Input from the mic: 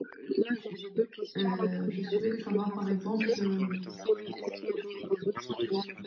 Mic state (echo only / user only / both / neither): both